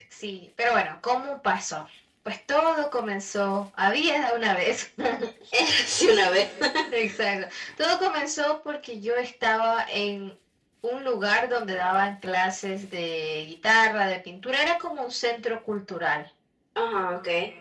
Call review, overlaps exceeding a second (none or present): none